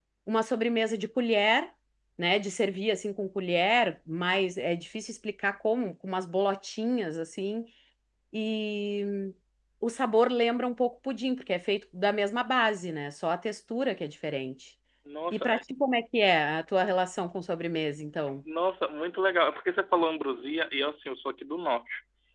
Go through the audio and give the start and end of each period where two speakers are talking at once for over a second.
none

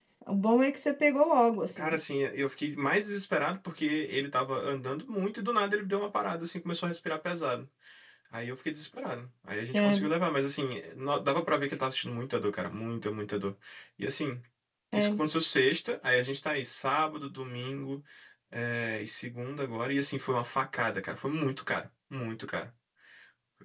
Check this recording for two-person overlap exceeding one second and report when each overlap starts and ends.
none

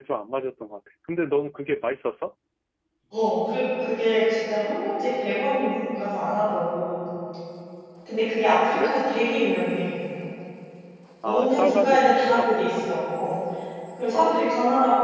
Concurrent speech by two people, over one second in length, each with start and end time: 11.2-12.8

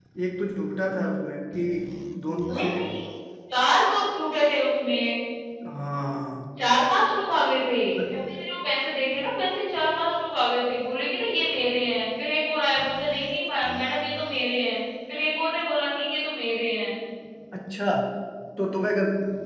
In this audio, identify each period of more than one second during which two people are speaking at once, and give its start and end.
none

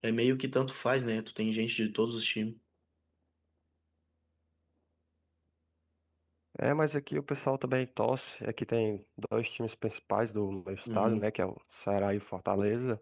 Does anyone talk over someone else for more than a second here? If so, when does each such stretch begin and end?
none

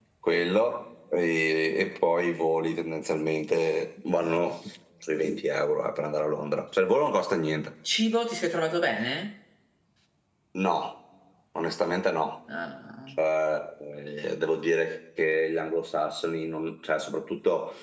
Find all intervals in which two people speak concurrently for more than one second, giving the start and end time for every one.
none

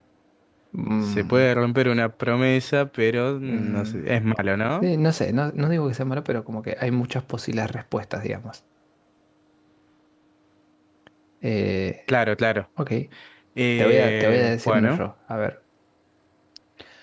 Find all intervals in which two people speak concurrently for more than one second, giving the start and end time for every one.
13.8-15.0

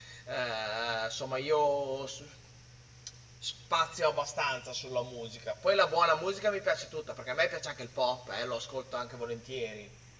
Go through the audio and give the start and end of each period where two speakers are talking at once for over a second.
none

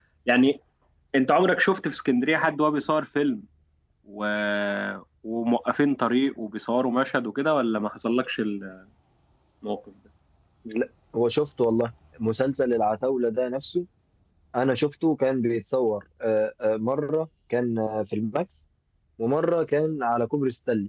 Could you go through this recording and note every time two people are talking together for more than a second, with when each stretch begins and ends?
none

